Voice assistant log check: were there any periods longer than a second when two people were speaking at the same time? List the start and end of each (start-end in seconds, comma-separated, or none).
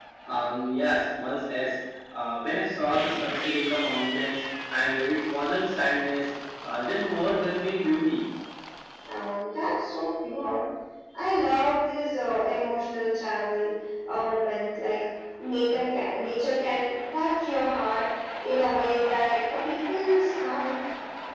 none